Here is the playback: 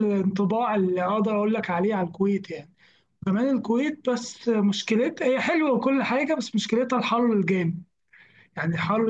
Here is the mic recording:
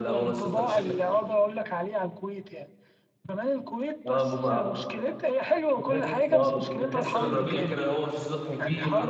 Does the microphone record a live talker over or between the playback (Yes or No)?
Yes